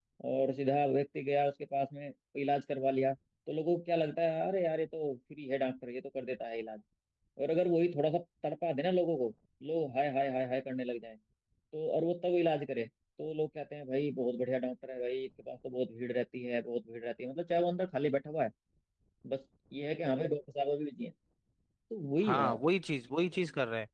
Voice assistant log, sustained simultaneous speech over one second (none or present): none